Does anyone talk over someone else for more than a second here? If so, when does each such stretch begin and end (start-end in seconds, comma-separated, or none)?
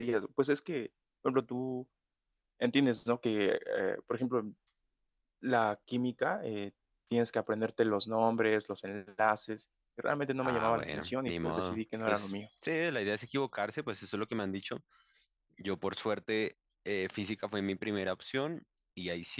10.4-12.3